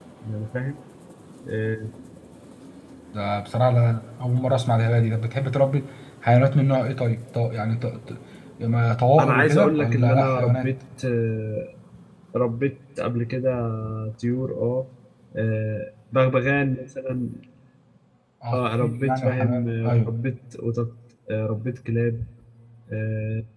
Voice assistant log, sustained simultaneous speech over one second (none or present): present